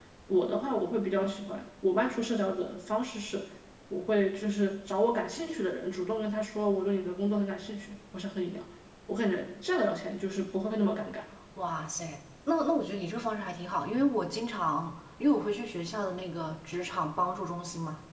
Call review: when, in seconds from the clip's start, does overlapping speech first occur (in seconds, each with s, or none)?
none